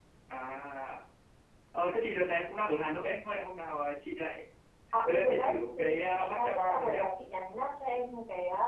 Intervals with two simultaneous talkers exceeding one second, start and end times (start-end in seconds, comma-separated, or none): 5.0-7.0